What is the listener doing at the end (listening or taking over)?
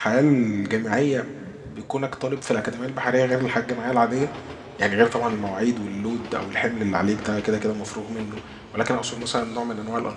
listening